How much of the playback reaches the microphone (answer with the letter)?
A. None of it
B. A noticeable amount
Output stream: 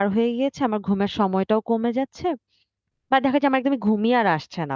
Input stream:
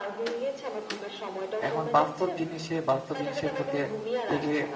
B